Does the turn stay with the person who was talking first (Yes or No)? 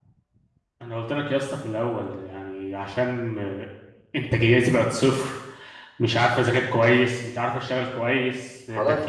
No